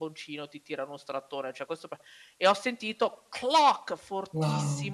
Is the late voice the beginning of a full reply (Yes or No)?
No